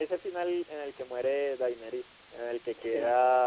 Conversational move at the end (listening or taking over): listening